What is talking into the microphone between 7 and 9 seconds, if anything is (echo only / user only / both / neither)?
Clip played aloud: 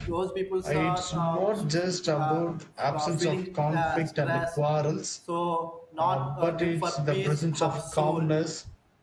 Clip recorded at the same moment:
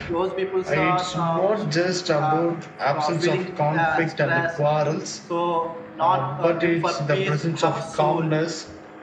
echo only